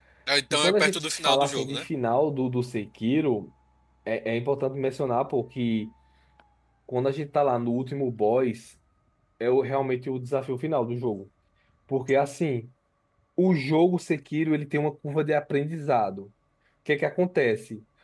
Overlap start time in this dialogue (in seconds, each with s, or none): 0.5 s